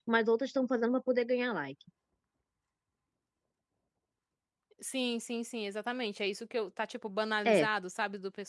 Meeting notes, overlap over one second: none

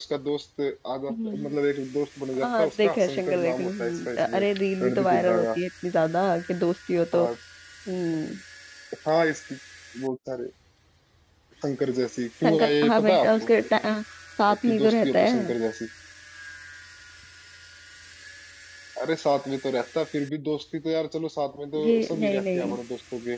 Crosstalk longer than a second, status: present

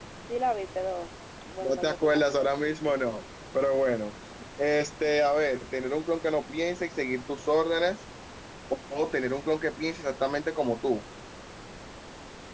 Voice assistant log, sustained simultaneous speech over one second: present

